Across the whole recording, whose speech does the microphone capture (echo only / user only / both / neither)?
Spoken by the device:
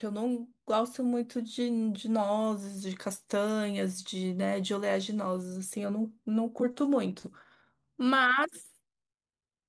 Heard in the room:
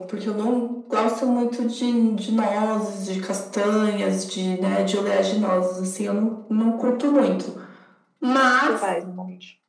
both